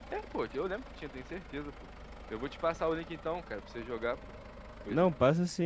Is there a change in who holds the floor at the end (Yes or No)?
Yes